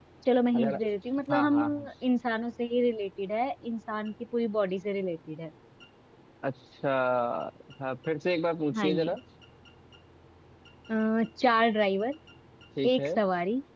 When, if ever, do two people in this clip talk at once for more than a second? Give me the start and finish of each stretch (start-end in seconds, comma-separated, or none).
none